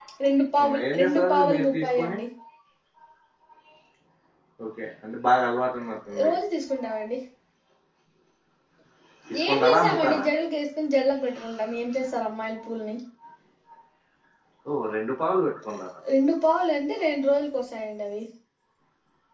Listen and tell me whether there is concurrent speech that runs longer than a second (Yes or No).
Yes